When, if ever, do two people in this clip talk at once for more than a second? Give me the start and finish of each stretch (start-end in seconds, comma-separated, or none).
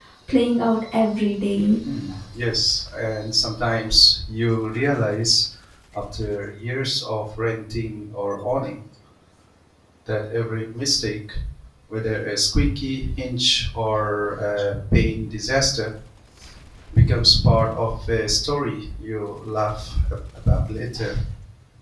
none